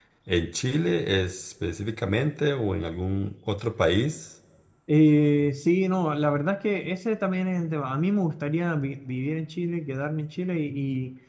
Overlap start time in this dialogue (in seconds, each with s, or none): none